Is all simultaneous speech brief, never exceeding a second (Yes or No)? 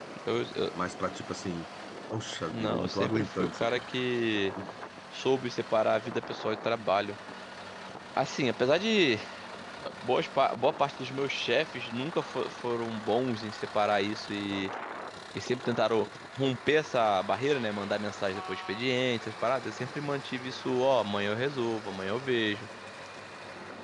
No